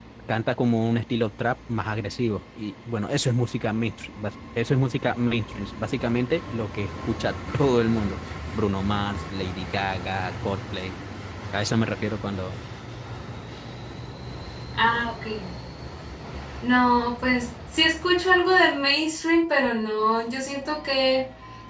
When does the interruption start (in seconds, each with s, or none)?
none